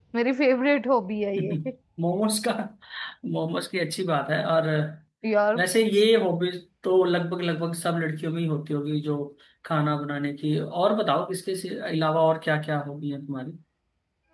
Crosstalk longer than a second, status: none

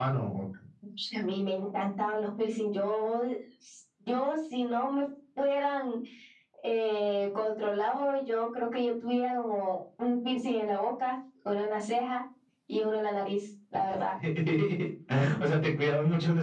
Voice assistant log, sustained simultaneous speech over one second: none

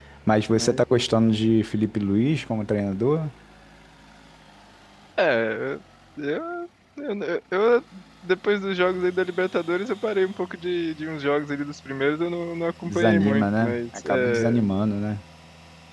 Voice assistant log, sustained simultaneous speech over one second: present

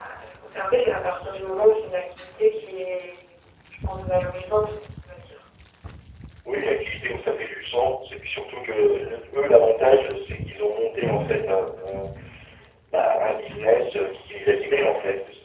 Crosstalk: none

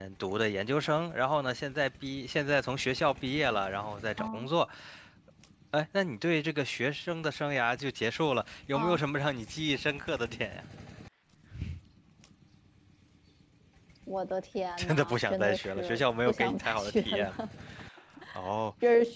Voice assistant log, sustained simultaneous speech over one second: present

